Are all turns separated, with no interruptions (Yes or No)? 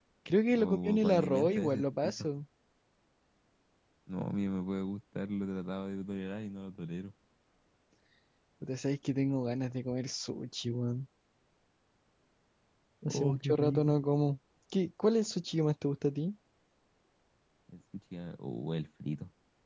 No